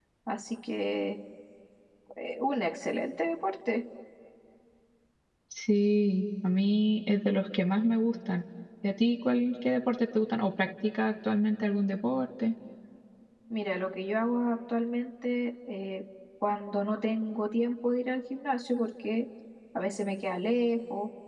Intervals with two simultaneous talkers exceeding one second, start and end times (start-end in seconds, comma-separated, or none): none